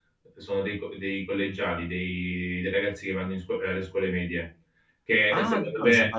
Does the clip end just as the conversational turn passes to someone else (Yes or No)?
Yes